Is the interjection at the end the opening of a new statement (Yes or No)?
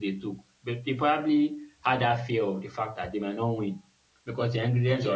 No